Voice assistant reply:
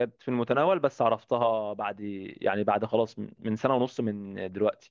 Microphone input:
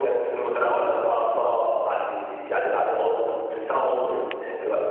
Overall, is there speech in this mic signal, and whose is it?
echo only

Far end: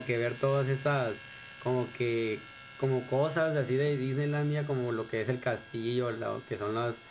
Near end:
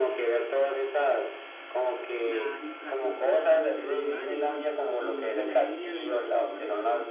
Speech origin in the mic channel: both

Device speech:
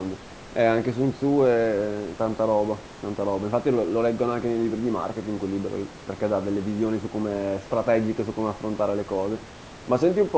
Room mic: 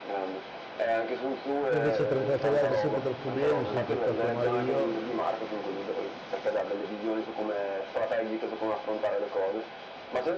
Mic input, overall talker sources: both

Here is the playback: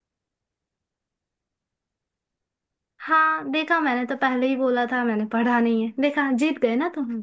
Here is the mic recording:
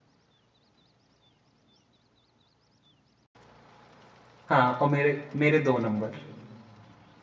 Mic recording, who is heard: user only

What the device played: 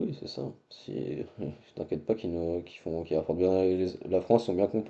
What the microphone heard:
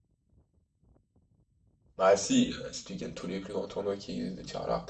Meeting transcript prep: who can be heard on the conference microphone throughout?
user only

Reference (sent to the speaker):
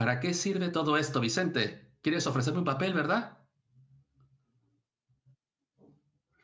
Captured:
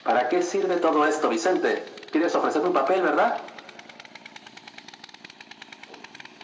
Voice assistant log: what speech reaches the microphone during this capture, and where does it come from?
echo only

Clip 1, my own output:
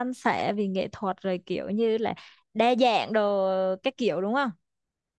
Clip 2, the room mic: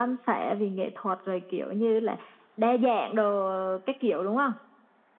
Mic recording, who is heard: echo only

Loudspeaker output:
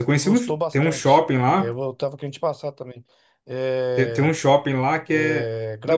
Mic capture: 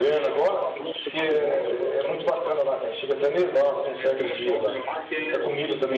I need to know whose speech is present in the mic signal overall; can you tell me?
both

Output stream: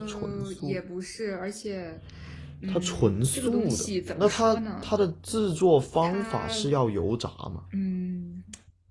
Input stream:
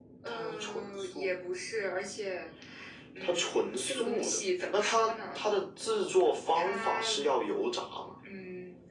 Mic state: echo only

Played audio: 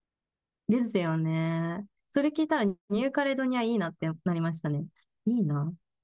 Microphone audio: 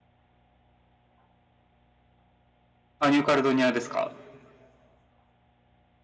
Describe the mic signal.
user only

